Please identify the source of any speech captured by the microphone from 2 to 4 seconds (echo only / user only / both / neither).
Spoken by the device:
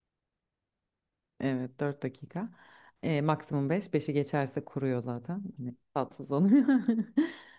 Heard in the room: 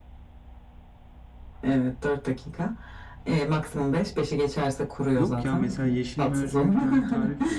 echo only